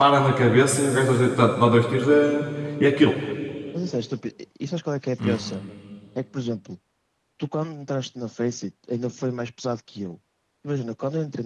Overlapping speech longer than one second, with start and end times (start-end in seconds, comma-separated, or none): none